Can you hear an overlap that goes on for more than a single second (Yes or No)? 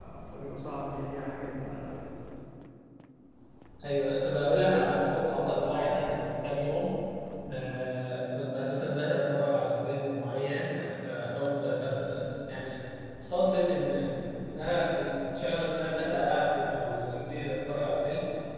No